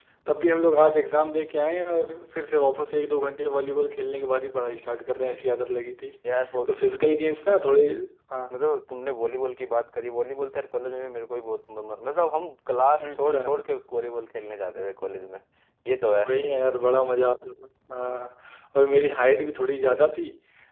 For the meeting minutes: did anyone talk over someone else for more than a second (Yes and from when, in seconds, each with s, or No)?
No